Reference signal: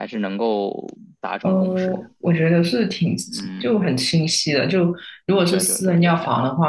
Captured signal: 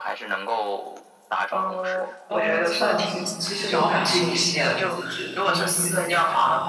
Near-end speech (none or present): present